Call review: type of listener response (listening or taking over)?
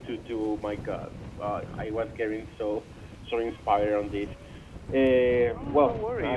taking over